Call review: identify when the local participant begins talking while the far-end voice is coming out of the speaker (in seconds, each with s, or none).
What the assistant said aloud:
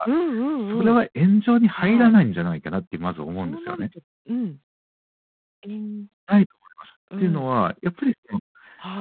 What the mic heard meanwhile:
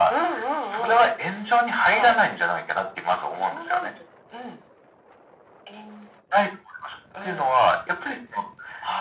none